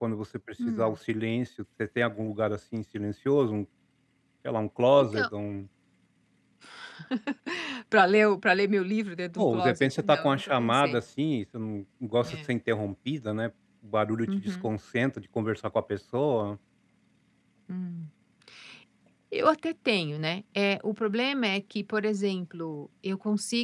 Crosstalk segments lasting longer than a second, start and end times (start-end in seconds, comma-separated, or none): 9.4-11.0